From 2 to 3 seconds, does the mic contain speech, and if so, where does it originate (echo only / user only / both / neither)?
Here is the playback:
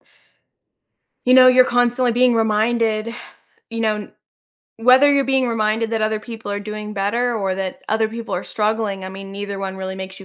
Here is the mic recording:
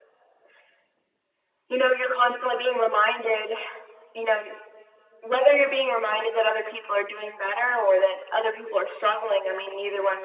echo only